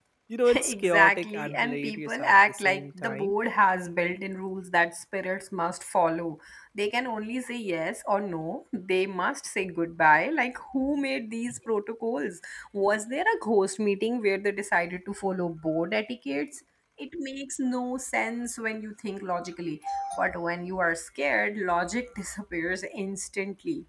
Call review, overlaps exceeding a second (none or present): present